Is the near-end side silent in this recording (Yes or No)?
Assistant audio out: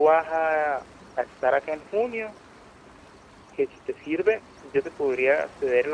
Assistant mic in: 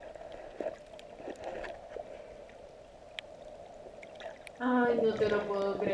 No